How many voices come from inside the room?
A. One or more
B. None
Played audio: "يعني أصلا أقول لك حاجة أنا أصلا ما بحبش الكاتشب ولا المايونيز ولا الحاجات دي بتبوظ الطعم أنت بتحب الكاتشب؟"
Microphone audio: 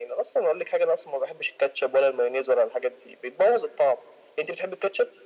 B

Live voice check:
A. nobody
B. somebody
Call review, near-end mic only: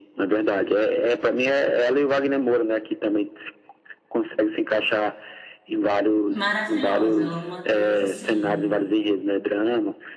B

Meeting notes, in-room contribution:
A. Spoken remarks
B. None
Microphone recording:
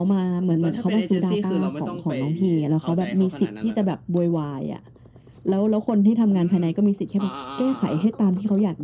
A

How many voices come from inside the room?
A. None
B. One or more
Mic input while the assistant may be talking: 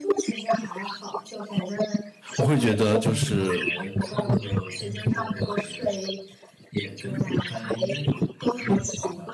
B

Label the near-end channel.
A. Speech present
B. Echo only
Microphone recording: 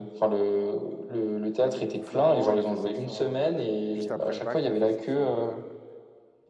A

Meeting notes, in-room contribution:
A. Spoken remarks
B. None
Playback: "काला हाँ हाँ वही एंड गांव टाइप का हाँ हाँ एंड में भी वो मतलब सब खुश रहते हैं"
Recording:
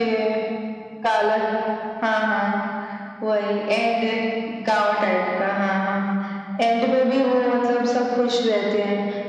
B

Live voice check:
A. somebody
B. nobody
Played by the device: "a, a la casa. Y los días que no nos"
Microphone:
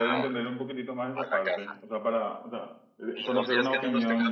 A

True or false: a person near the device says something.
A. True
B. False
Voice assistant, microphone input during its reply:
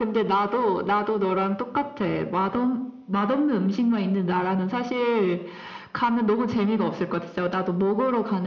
B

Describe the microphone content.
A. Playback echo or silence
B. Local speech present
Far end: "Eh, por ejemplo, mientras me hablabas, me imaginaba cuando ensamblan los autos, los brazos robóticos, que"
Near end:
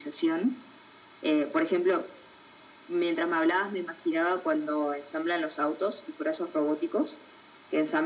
A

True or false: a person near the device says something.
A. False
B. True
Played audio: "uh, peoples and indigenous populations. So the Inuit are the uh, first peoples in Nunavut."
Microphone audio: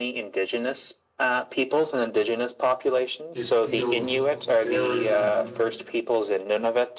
B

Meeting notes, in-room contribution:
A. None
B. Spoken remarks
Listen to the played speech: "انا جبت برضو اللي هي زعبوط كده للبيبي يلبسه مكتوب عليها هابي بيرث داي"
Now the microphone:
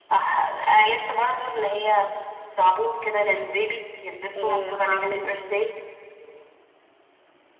B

